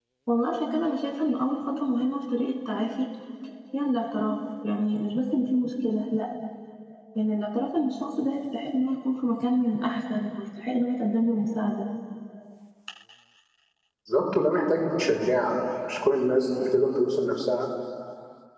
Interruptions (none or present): none